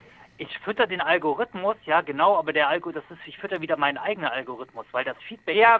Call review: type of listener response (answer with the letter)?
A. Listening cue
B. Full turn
B